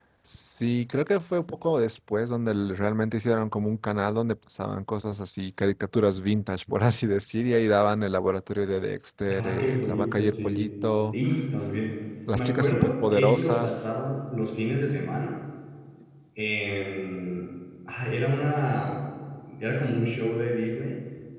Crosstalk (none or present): present